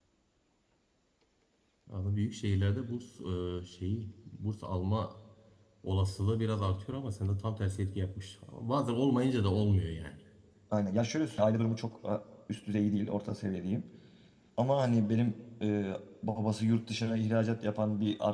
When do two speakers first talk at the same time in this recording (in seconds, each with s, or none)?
none